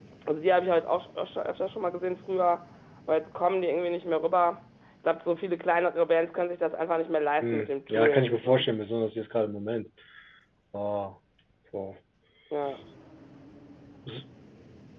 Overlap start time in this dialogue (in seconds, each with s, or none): 7.4 s